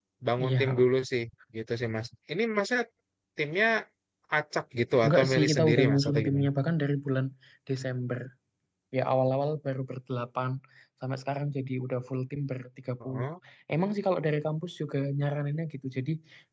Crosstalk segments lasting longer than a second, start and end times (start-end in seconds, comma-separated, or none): 5.0-6.5